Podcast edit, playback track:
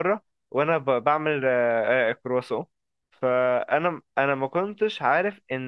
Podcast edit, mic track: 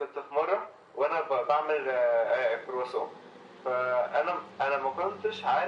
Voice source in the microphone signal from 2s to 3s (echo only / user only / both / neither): echo only